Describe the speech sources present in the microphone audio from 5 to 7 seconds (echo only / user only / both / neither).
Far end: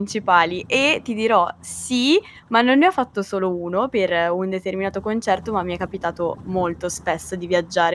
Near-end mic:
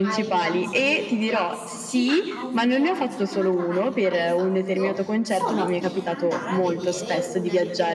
both